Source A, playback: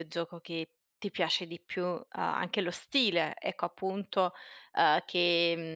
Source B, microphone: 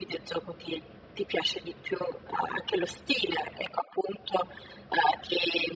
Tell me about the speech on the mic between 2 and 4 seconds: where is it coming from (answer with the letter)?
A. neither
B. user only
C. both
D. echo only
D